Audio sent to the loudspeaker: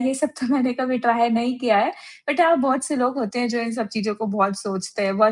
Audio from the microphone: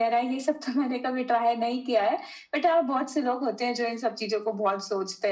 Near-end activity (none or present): none